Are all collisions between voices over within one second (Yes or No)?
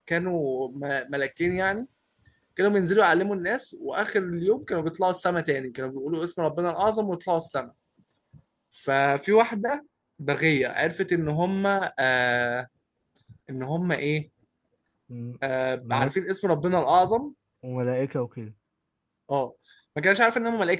Yes